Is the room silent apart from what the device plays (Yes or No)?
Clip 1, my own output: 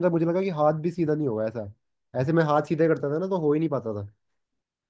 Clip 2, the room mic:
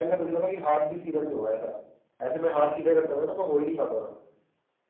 Yes